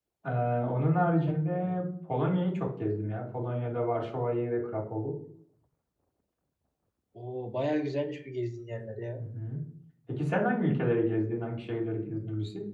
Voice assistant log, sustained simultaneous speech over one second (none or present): none